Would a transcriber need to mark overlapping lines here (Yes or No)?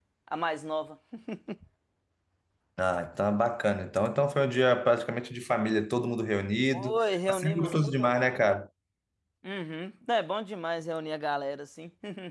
Yes